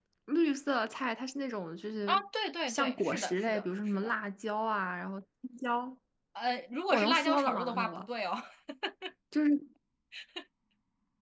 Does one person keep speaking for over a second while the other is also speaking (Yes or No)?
Yes